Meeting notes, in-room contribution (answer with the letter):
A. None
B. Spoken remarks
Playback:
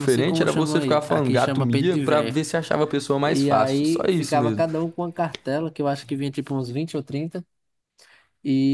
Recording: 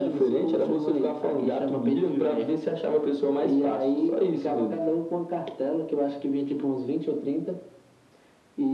A